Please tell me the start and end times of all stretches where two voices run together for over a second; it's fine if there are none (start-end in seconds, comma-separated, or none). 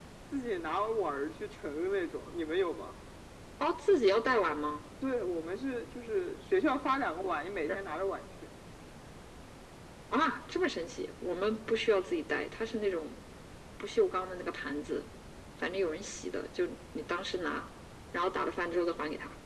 none